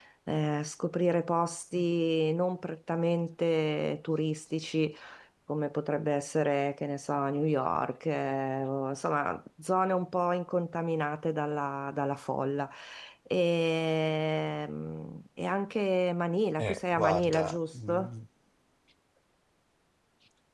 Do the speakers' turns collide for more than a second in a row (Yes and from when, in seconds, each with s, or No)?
Yes, from 16.6 s